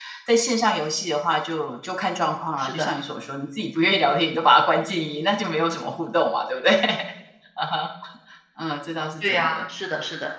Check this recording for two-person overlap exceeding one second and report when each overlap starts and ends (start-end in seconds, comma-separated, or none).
none